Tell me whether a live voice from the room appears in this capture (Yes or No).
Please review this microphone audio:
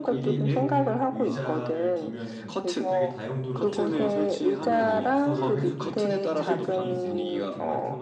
Yes